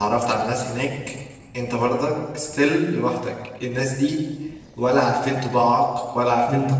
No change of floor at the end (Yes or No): Yes